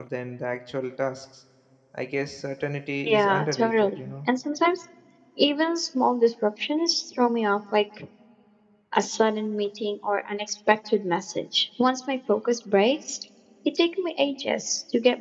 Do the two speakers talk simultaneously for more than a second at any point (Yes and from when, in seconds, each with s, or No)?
Yes, from 3.1 s